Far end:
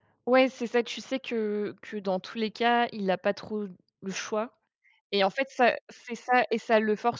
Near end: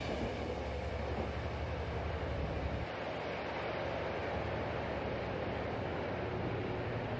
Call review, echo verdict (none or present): none